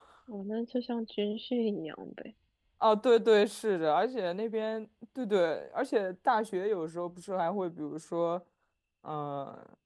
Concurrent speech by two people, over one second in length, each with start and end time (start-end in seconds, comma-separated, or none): none